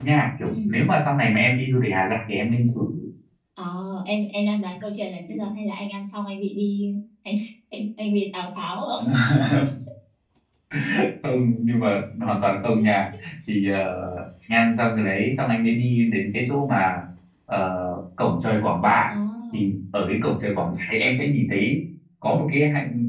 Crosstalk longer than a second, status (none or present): none